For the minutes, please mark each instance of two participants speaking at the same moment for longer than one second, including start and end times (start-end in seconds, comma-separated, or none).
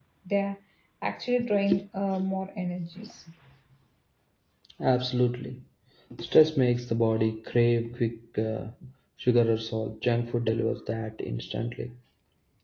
none